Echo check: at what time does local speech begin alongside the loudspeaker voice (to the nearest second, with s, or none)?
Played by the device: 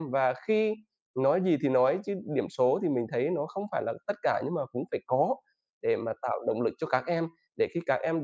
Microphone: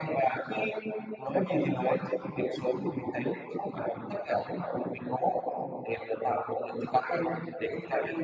none